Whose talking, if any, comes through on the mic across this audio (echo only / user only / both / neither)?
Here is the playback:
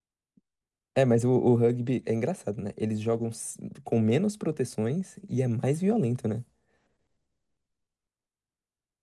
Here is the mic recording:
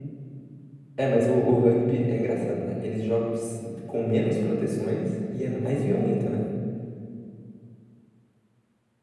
echo only